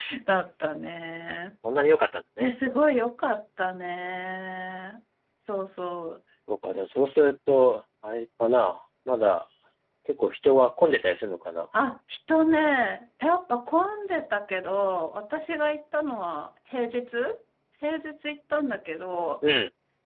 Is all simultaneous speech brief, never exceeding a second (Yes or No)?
Yes